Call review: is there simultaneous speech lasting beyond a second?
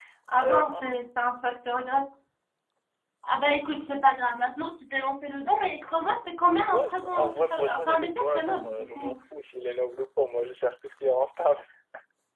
Yes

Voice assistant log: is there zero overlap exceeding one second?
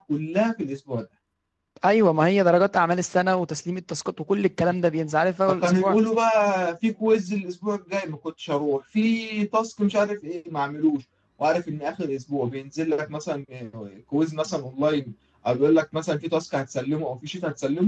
Yes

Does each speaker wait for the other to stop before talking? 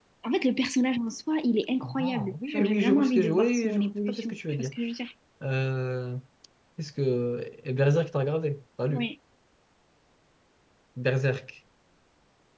No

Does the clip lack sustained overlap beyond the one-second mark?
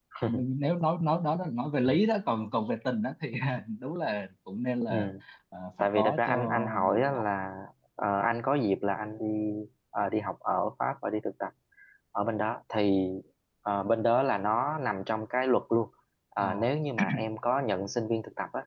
No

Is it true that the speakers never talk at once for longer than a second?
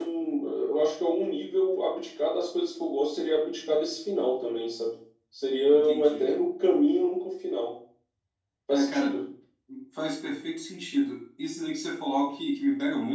Yes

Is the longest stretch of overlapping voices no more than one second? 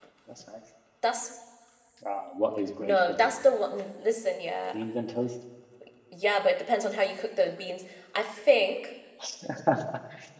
Yes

